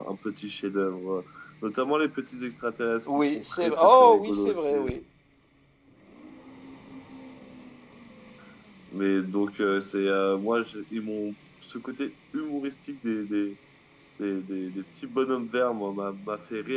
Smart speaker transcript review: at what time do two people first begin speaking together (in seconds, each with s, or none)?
3.0 s